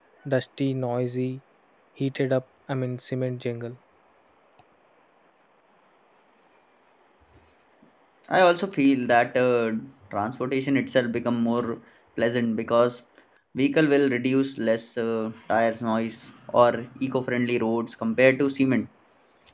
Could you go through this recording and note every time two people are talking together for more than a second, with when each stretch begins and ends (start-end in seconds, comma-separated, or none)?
none